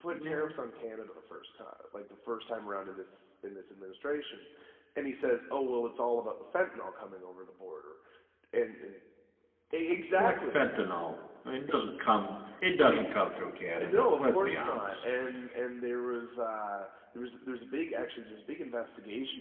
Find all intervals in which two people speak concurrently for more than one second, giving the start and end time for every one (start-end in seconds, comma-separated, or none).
13.9-15.1